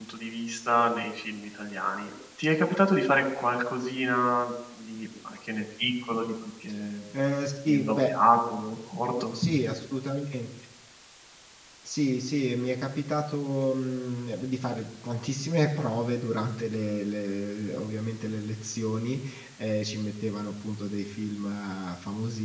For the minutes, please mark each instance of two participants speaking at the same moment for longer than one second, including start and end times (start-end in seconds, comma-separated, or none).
none